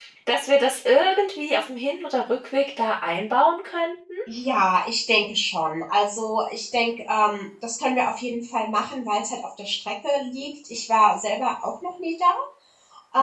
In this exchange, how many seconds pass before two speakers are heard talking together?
none

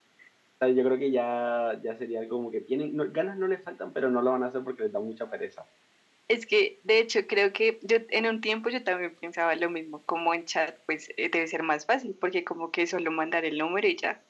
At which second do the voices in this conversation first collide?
none

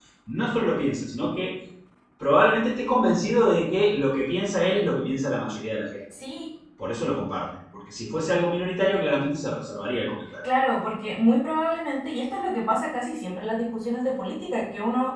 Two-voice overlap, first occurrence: none

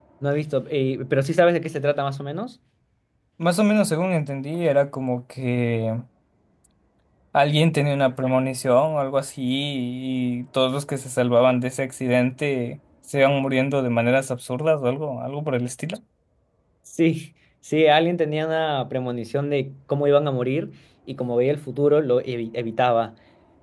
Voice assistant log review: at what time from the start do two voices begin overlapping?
none

